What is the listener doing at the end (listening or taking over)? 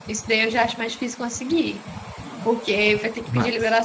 listening